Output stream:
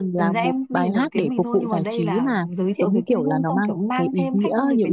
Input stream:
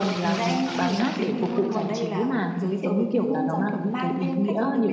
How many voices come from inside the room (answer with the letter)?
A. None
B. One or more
A